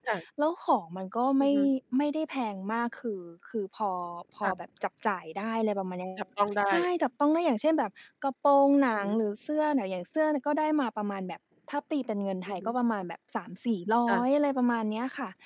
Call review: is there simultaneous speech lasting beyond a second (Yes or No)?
No